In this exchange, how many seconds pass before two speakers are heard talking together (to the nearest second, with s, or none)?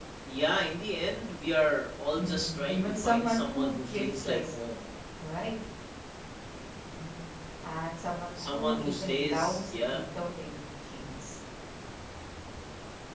2 s